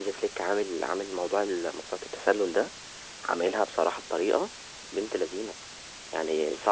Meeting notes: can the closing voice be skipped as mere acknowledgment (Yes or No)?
Yes